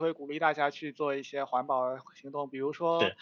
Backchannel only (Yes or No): Yes